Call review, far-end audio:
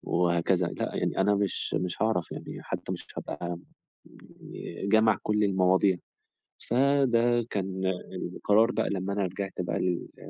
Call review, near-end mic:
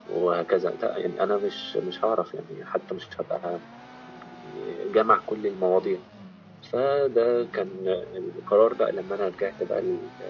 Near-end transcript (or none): none